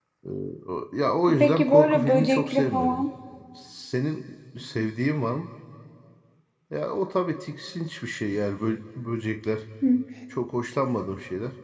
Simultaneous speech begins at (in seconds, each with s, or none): 1.4 s